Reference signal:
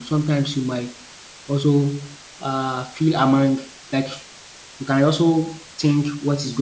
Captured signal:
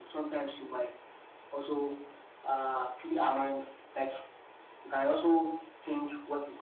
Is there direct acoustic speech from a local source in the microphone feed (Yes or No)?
No